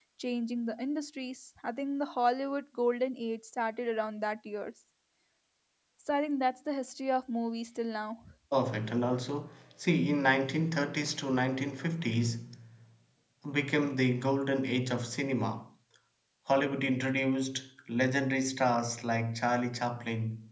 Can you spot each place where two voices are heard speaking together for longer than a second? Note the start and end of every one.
none

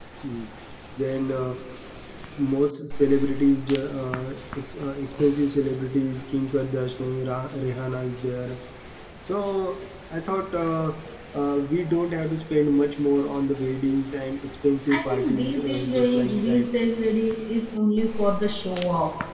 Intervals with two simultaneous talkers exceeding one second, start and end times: 15.0-16.7

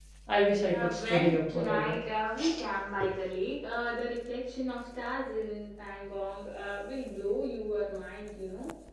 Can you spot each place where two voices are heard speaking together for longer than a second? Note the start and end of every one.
0.7-2.0

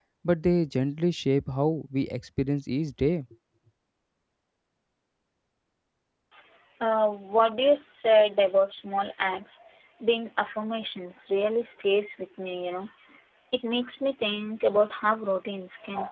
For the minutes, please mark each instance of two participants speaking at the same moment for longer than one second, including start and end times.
none

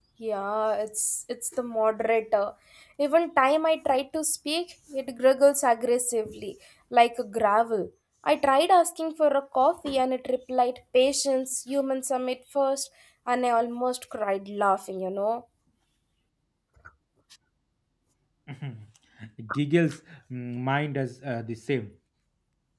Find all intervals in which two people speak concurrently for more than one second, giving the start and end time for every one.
none

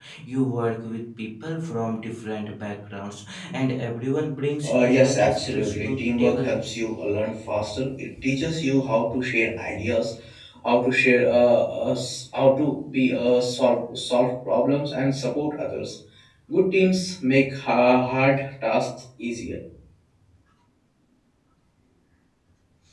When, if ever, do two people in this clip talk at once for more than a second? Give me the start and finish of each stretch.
4.6-6.5

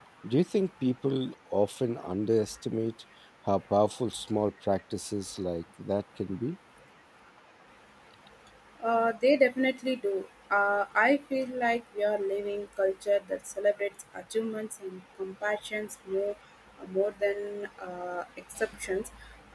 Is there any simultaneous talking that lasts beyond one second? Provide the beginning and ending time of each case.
none

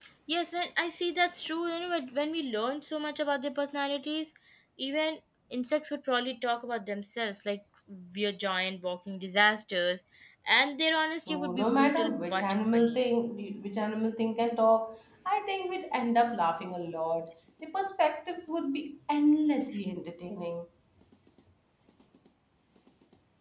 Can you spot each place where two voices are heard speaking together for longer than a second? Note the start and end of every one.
11.3-13.0

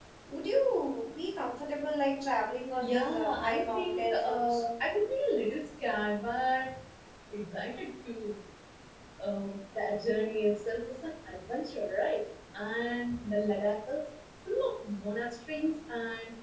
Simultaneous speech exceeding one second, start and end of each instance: 2.8-4.6

